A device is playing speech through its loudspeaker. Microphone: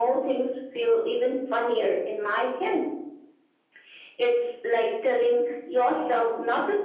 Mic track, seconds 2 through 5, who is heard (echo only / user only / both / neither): echo only